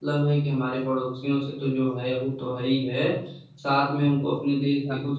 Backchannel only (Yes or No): Yes